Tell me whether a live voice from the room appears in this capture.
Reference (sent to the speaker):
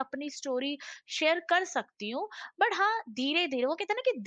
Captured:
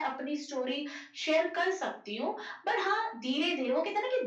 No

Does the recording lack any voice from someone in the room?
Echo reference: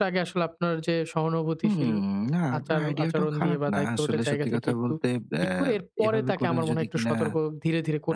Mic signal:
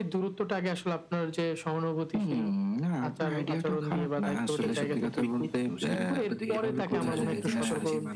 No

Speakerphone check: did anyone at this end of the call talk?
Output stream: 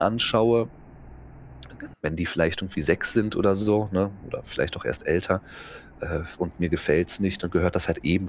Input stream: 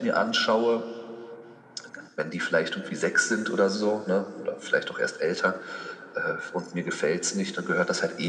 No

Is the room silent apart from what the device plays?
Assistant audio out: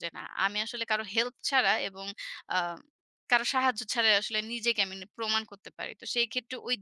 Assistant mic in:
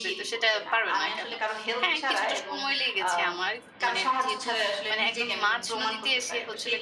No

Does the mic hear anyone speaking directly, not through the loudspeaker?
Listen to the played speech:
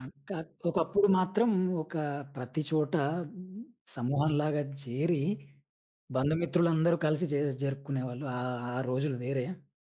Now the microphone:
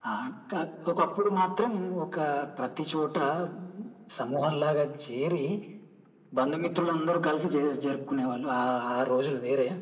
No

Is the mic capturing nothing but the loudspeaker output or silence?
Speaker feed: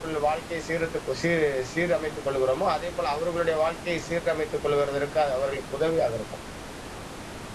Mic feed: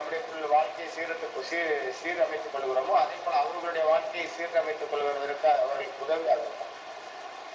Yes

